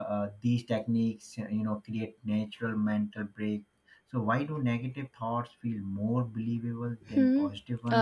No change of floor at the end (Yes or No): No